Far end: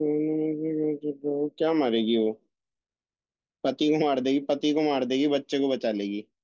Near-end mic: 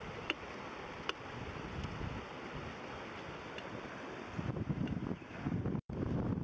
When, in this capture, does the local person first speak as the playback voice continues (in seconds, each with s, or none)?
none